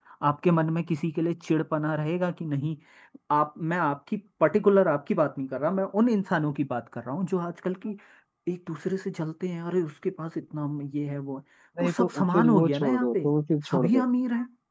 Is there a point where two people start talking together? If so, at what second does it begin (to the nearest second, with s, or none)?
12 s